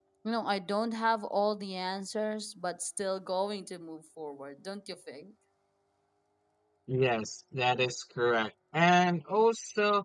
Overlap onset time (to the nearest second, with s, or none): none